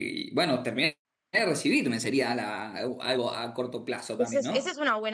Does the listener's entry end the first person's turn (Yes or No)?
Yes